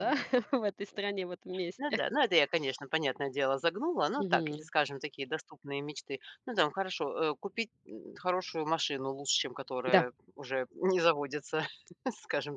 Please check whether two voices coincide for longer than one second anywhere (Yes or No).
No